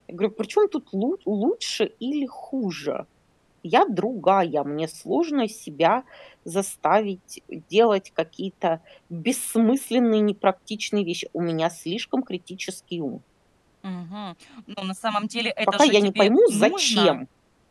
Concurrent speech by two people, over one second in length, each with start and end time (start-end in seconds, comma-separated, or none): 15.7-17.2